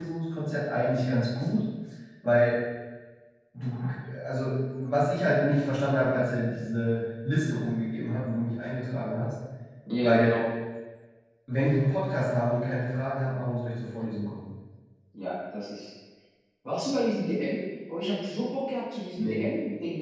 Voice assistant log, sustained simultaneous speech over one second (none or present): none